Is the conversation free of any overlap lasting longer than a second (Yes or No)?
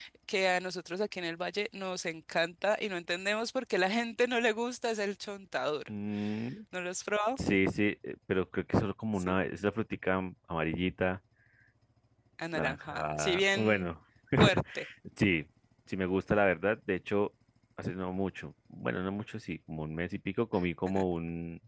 No